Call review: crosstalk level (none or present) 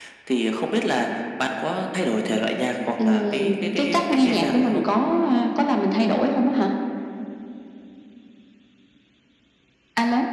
present